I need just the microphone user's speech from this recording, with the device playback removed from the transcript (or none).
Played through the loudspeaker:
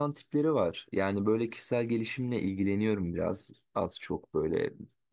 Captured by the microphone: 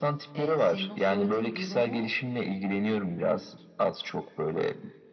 E, senin o söylediğin durumu